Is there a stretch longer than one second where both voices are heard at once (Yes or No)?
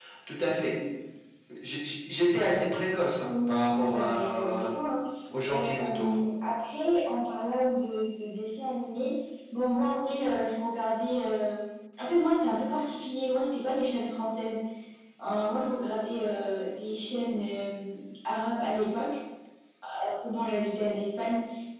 Yes